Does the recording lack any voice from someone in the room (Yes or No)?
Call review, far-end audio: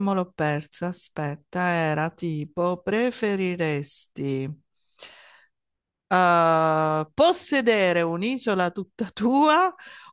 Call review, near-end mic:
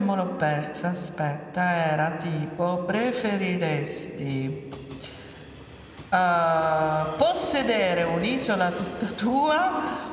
Yes